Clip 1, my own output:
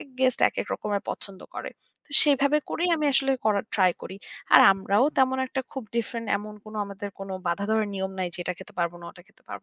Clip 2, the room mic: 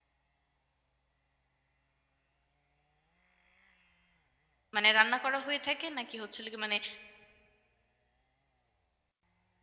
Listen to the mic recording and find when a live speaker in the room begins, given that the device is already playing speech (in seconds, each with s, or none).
4.8 s